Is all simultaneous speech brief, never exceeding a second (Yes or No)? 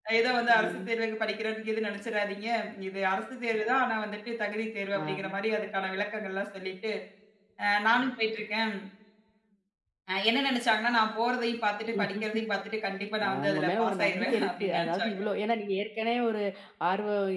No